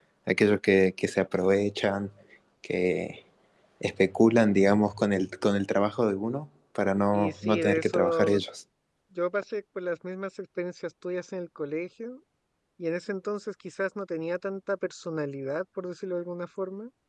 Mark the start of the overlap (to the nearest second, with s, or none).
7 s